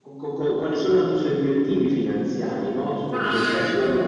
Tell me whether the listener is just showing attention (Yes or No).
No